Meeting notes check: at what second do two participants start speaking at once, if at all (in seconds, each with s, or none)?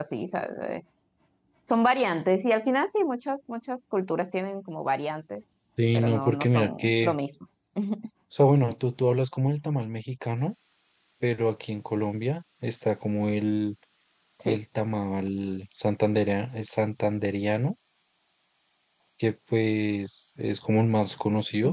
5.9 s